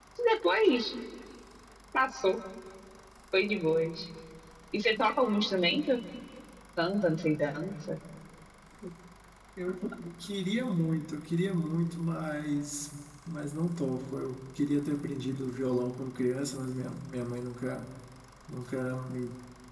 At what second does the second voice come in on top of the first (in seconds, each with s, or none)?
none